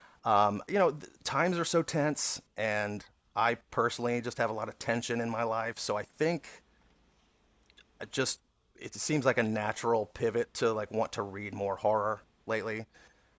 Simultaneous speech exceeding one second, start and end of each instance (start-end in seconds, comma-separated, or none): none